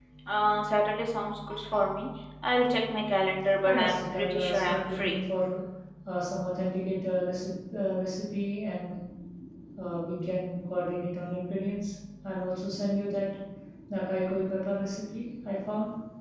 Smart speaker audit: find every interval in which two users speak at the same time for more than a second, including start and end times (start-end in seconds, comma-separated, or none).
3.6-5.2